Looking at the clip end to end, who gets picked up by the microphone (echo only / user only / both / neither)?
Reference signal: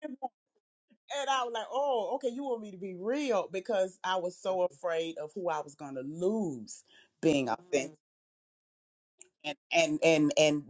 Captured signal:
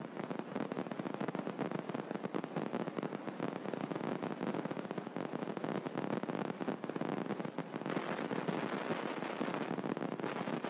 neither